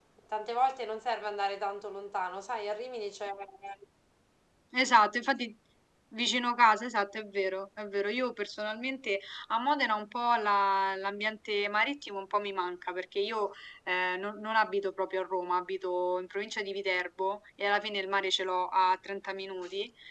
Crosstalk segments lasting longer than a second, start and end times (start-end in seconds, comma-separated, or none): none